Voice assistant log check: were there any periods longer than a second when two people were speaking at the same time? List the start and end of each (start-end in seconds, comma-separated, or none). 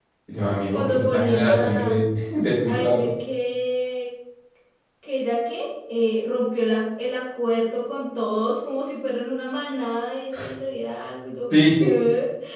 0.7-2.0